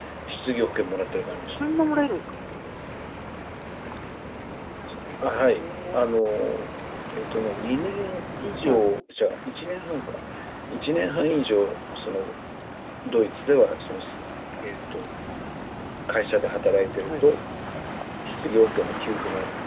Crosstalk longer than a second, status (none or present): none